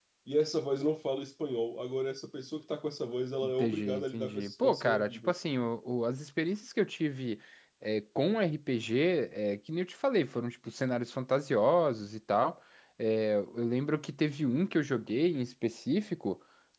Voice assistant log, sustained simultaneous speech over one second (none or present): present